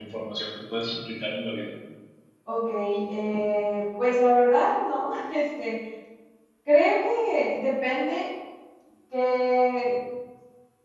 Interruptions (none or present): none